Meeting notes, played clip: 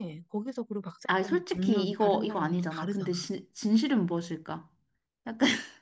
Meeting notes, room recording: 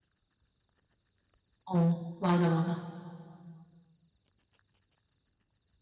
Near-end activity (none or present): present